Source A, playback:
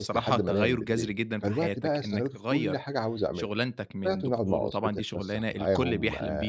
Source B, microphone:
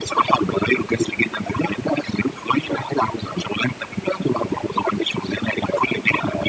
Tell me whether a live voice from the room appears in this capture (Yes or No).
No